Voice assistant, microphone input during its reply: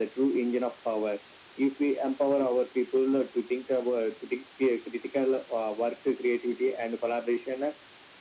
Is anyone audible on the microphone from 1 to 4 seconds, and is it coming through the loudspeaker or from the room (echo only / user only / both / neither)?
echo only